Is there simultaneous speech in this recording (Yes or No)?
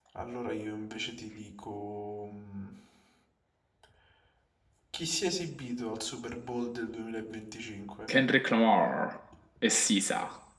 No